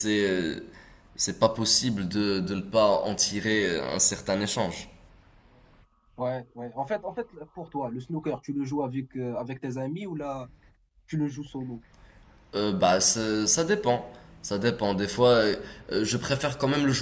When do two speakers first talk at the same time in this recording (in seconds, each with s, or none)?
none